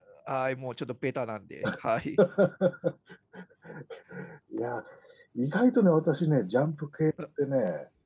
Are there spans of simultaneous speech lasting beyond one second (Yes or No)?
No